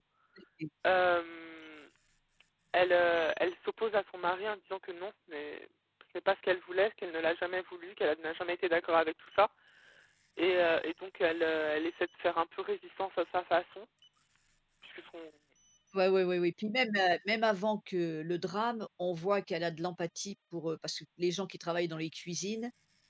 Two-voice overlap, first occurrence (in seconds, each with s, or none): none